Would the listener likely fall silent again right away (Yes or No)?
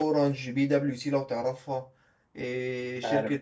Yes